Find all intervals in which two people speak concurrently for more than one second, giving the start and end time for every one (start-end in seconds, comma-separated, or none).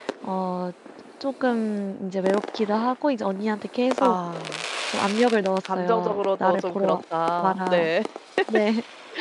5.7-7.0